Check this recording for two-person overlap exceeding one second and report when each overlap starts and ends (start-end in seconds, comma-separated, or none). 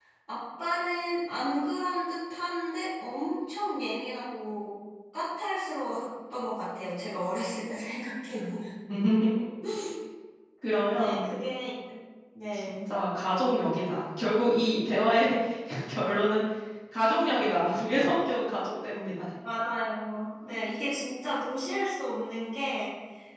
none